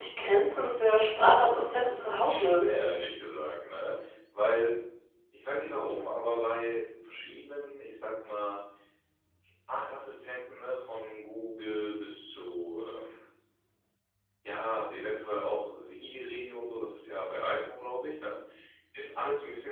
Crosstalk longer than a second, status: present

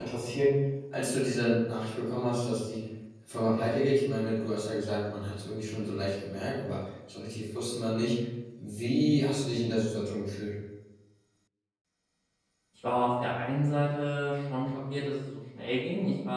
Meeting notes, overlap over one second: none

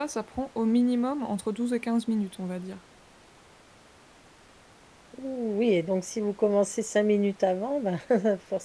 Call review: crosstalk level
none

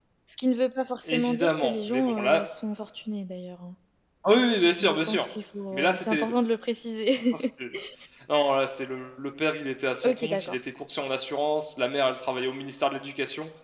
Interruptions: present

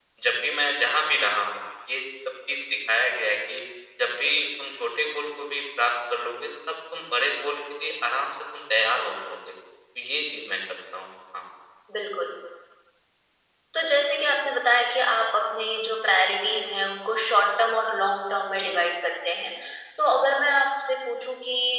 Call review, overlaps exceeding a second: none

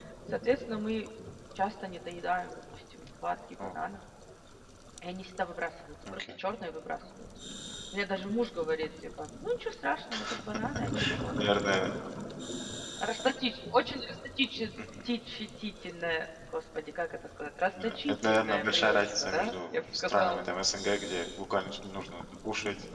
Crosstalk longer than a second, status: present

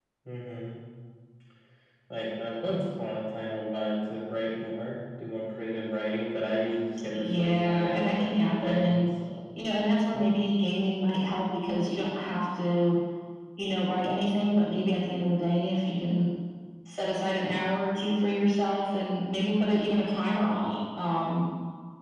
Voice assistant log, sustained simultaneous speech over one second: present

